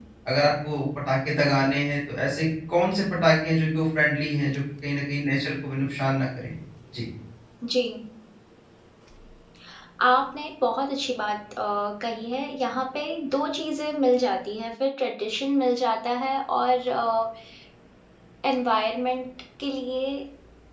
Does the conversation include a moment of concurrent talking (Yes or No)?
No